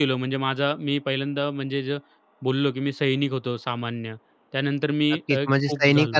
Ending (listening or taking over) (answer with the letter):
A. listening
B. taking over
B